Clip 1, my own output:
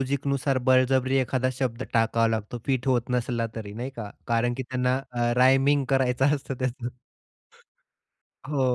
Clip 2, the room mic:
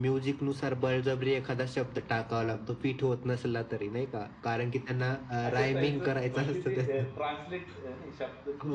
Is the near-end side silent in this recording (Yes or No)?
No